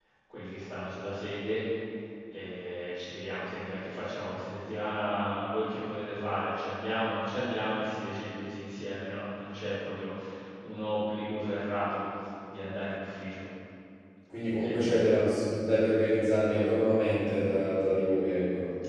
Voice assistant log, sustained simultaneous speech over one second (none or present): none